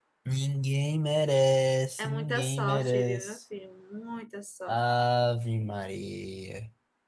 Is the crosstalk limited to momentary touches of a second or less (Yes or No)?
No